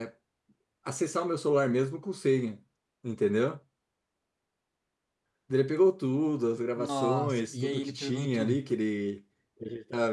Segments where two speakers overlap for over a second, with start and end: 6.8-8.6

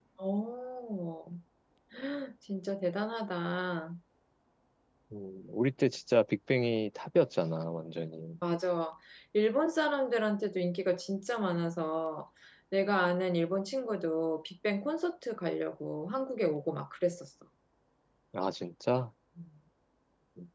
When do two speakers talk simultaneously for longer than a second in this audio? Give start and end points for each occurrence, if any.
none

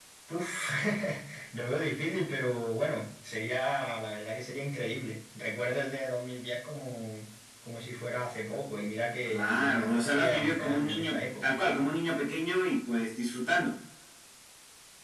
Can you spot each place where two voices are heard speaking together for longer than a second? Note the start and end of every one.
9.3-11.6

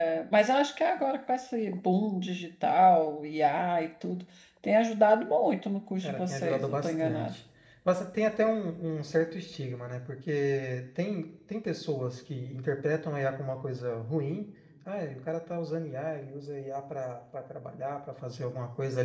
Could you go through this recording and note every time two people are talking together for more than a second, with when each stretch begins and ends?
6.0-7.3

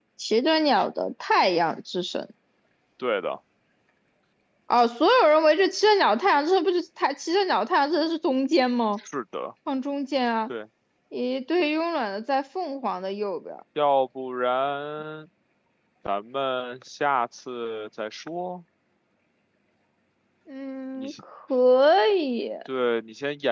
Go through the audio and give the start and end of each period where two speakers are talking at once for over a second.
none

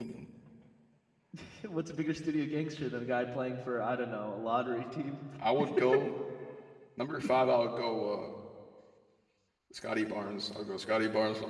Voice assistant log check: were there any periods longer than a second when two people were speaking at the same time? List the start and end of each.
none

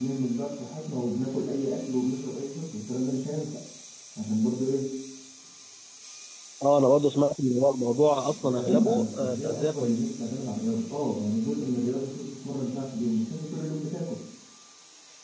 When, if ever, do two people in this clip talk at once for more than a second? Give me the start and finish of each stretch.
8.3-10.1

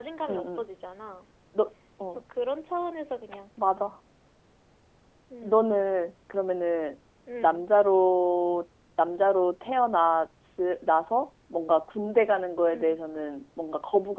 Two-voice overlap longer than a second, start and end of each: none

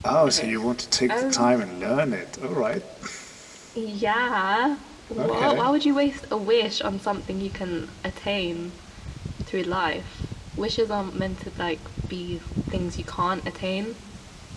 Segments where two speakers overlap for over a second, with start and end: none

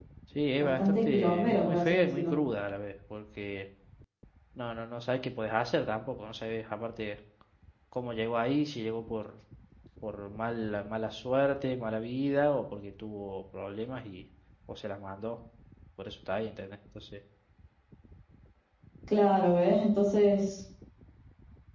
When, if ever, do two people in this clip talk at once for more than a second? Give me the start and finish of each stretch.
0.6-2.3

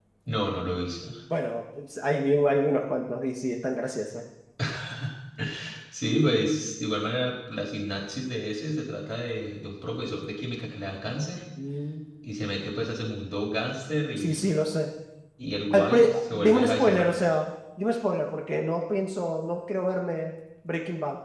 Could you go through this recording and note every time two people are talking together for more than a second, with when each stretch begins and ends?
15.7-17.1

